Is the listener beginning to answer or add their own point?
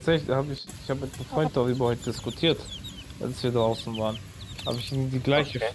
No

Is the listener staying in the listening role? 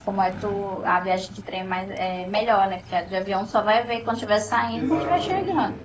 No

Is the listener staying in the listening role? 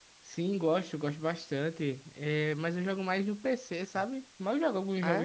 Yes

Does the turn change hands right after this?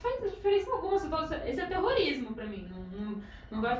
Yes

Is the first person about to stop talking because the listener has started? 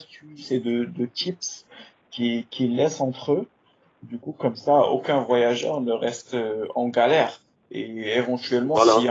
No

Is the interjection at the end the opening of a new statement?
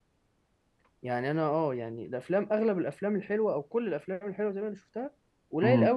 No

